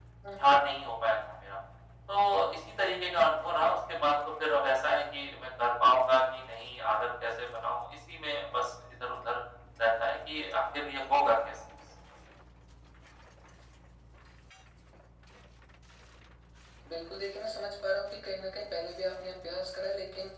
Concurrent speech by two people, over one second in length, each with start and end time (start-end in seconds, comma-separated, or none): none